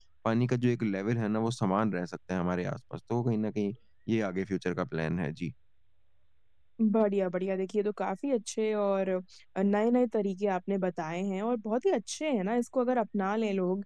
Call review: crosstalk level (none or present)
none